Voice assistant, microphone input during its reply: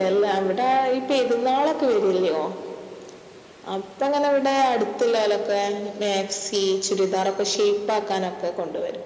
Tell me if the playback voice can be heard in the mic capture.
Yes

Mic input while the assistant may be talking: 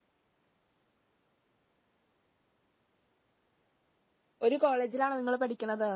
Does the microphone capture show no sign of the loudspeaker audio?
Yes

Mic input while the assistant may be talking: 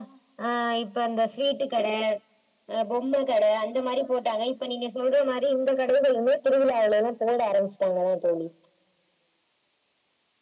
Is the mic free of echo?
No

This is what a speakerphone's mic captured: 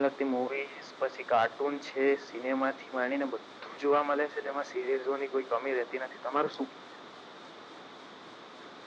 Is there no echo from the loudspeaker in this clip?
No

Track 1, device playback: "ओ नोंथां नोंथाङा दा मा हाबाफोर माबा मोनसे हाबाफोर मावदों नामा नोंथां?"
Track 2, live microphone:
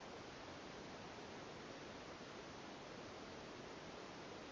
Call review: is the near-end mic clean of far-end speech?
Yes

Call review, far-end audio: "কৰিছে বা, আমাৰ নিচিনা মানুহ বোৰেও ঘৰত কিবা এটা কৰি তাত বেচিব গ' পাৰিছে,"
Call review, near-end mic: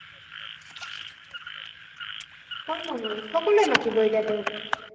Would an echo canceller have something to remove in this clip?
No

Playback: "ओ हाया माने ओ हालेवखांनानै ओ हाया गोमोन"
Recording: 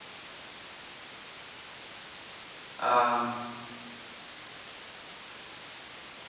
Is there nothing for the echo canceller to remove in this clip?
Yes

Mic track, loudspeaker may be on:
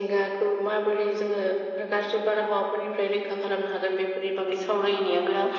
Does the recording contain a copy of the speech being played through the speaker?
Yes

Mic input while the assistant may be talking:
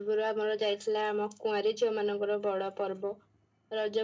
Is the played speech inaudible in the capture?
No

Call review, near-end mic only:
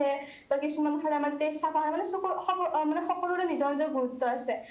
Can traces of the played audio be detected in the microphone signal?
Yes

